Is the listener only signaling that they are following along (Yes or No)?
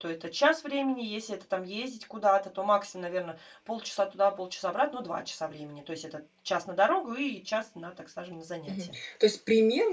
No